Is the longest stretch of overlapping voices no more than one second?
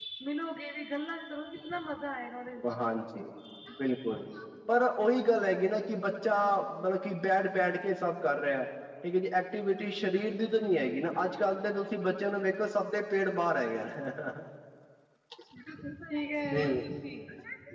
Yes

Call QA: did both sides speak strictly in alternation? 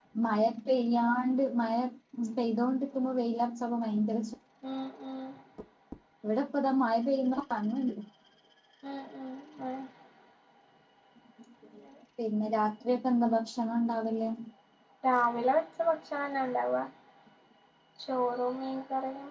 Yes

